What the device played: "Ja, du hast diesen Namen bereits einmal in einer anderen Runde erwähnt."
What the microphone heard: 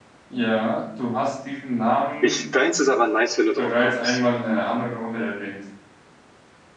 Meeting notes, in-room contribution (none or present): present